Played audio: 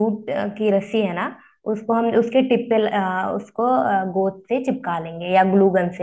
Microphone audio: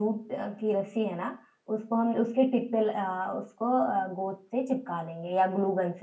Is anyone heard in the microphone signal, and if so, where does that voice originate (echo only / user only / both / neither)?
echo only